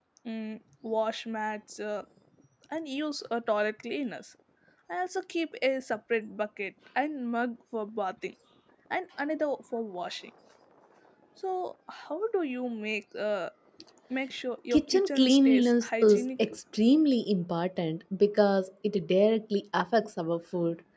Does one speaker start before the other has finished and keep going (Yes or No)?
Yes